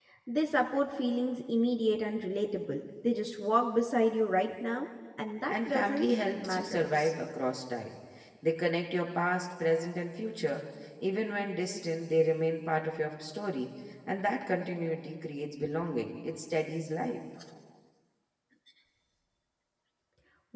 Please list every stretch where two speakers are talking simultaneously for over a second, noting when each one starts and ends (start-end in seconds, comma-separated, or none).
5.5-7.1